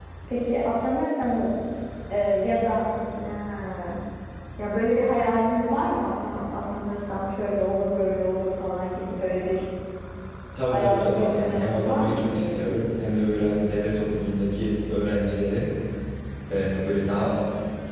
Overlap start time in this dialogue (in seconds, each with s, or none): 10.7 s